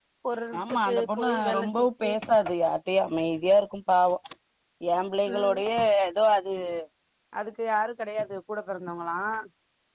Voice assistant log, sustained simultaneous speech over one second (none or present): present